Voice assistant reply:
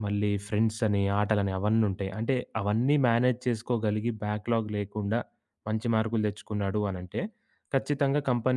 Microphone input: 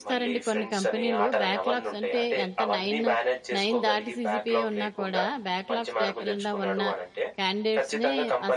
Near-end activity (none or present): present